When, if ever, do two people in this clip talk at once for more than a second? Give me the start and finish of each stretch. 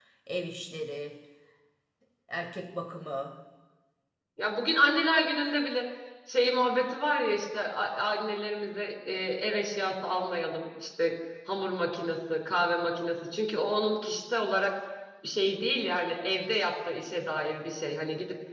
none

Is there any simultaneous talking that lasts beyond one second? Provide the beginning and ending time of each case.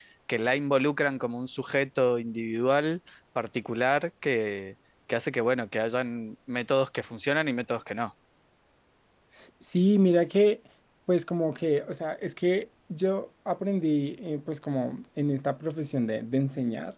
none

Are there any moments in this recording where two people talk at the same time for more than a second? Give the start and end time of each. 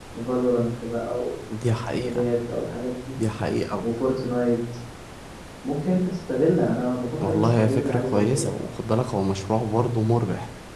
7.2-8.7

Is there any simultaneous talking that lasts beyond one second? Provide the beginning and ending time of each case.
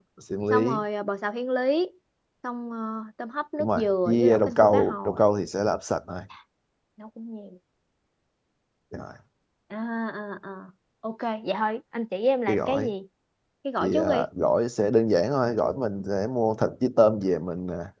3.6-5.2

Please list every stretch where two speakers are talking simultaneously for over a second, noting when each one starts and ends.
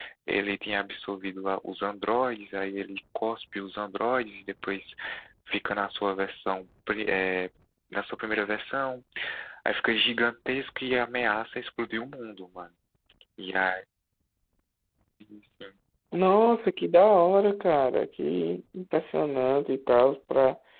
none

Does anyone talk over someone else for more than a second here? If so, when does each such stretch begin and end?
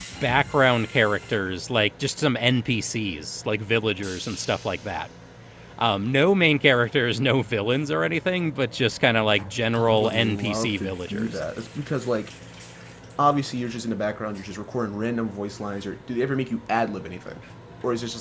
9.8-11.4

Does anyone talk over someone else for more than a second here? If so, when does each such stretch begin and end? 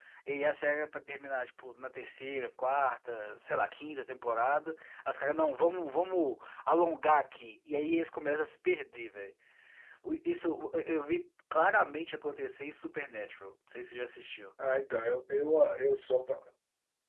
none

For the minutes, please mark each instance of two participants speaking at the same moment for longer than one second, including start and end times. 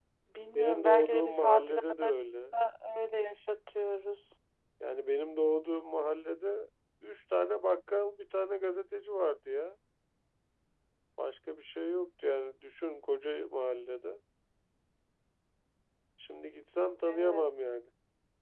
0.6-2.0

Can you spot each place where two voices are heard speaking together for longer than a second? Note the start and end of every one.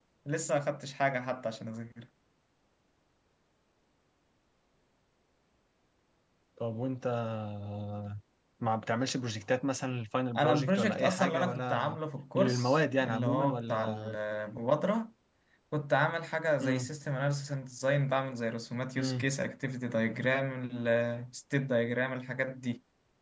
10.4-12.0, 12.3-14.0

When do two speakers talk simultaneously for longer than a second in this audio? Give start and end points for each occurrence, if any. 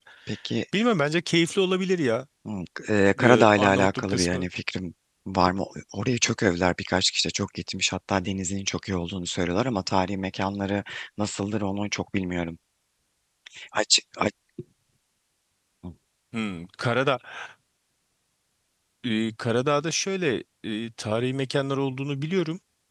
3.2-4.5

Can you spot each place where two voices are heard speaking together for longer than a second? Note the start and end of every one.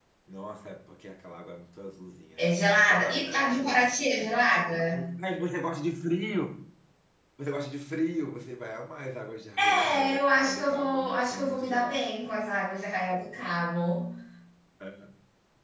2.4-3.9, 9.6-12.0

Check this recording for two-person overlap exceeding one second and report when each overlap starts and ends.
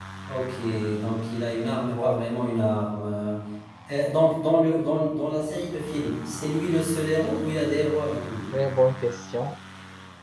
none

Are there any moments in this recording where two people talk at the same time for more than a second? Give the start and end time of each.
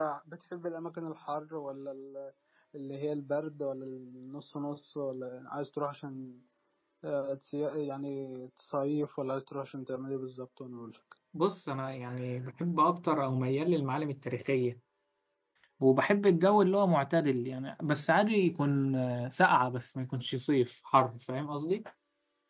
none

